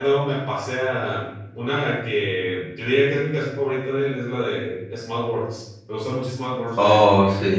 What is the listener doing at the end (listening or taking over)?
taking over